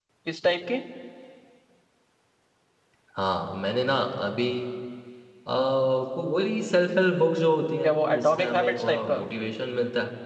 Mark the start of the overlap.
7.8 s

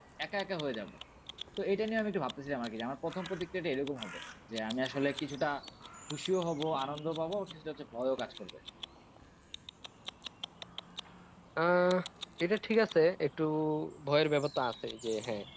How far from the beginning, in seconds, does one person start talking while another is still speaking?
none

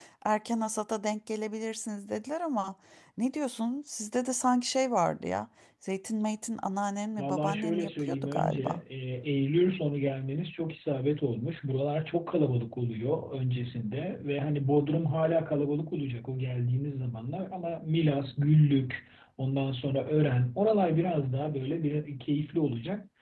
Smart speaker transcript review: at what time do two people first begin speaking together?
7.2 s

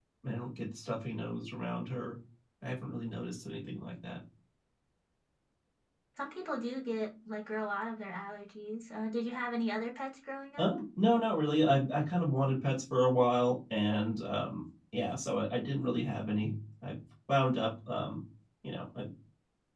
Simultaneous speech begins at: none

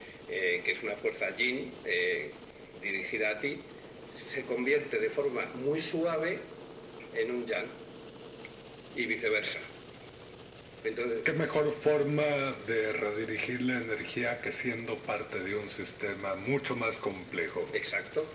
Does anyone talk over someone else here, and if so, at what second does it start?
none

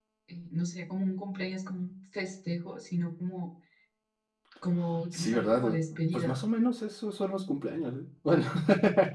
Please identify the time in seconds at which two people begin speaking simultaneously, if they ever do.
5.1 s

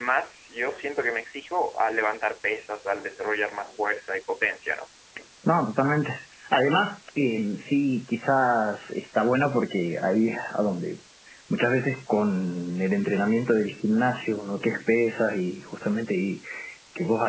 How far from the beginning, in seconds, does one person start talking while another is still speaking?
none

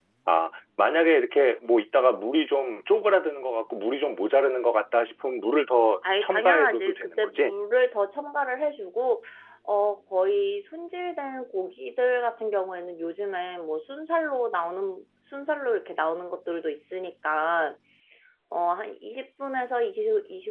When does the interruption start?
6.0 s

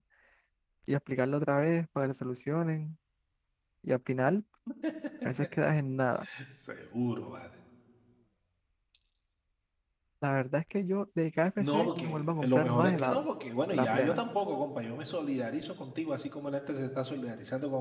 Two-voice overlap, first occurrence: 11.6 s

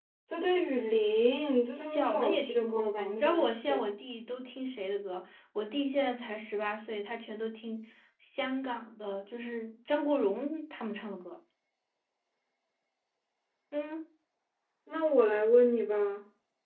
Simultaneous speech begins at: 1.8 s

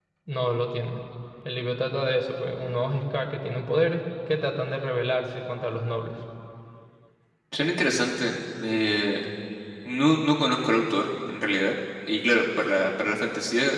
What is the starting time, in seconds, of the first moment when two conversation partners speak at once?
none

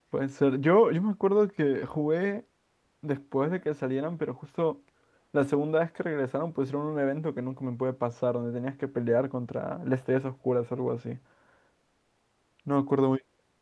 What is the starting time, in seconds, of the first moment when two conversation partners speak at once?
none

